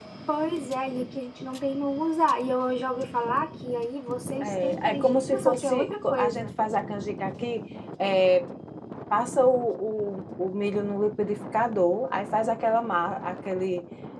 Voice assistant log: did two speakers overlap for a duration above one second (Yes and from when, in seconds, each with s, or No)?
Yes, from 4.4 s